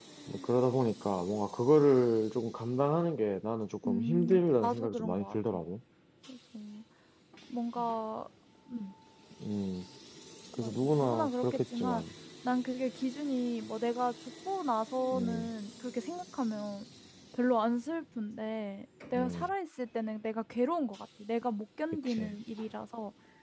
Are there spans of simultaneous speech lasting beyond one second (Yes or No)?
Yes